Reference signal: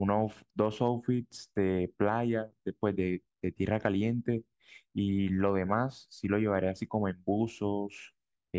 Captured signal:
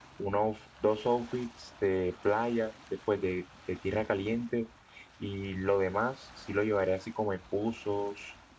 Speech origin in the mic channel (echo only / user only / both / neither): echo only